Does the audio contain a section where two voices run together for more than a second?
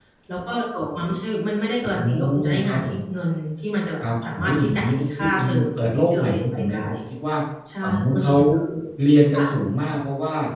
Yes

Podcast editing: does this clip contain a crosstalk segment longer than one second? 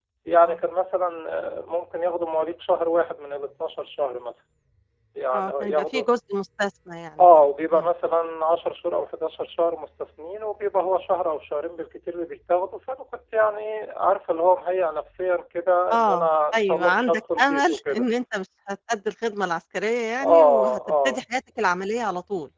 Yes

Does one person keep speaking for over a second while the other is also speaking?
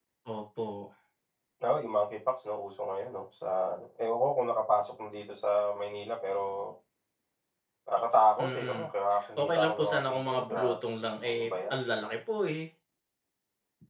Yes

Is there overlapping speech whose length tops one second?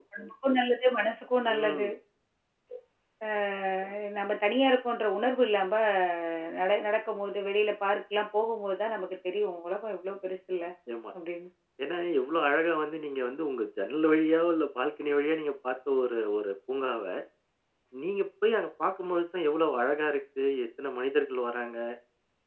No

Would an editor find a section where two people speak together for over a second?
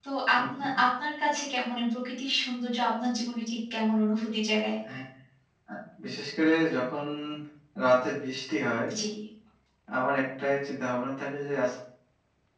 No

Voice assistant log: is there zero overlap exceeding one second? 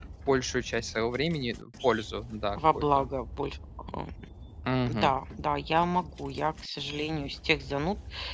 Yes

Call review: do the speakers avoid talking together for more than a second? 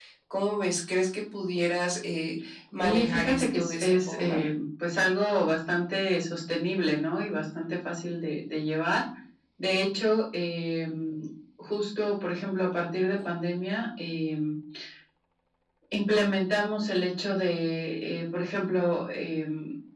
No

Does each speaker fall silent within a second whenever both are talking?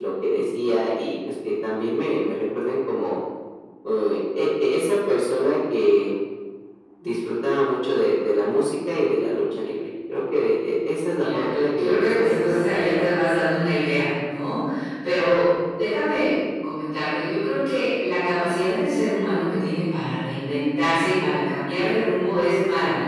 No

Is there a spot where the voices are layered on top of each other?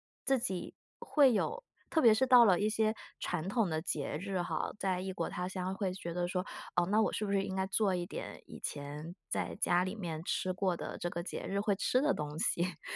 No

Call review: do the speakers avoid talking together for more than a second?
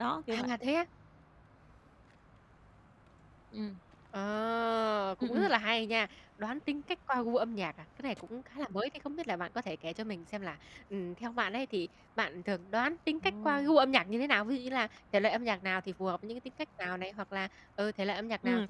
Yes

